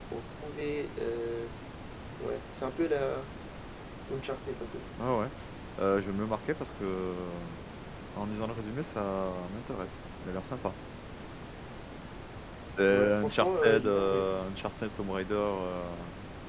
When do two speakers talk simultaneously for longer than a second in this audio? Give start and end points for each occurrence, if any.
12.9-14.3

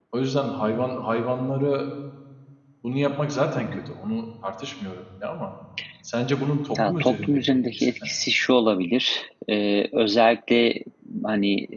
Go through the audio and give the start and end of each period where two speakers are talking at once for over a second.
6.8-8.1

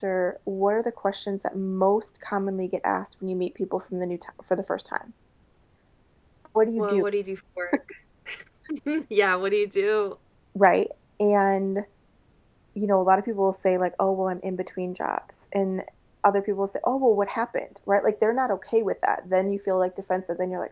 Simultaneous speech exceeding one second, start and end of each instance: none

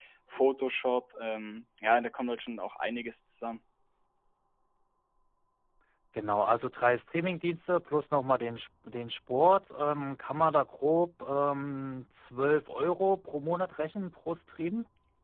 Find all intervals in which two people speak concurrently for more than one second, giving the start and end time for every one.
none

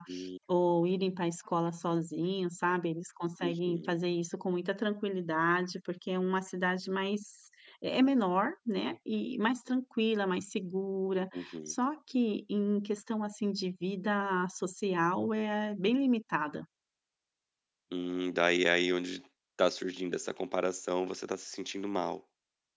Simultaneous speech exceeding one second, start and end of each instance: none

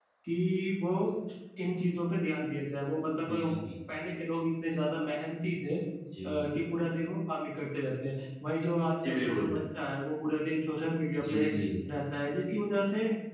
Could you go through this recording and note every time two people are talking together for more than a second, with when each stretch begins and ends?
none

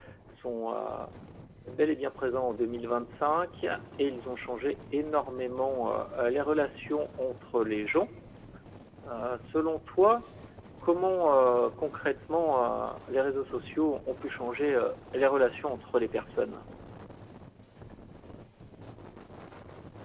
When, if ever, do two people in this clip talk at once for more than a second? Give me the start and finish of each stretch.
none

